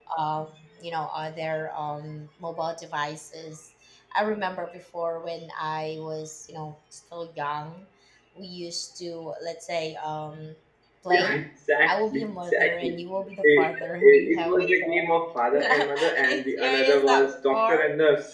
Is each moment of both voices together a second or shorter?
No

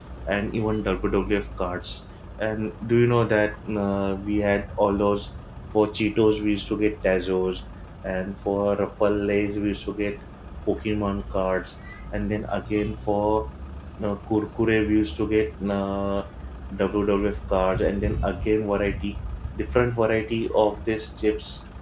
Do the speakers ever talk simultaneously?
No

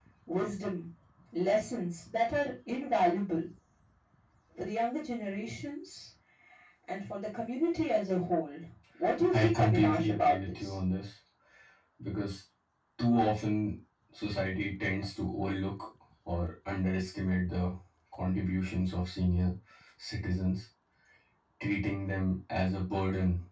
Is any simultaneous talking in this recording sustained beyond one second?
Yes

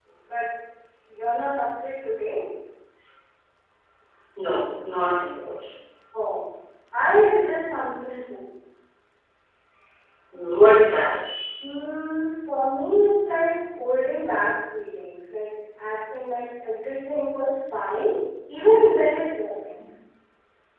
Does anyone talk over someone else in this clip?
No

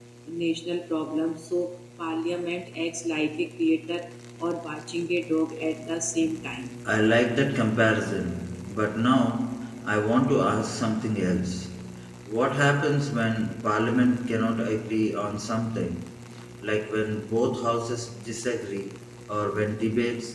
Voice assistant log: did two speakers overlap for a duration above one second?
No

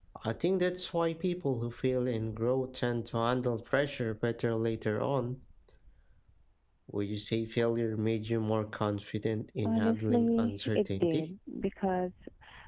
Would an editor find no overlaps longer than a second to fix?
No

